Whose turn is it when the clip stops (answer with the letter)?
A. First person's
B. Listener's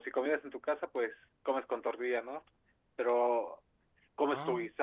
A